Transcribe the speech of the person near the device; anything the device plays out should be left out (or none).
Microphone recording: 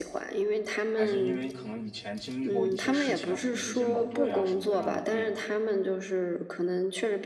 还是因为可能以前经历过一些事情啊，比如说一些矛盾呀、什么的，让你对